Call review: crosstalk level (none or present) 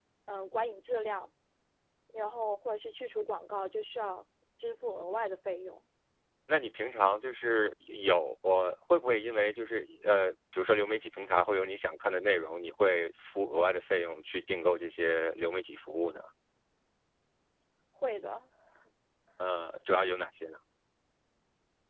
none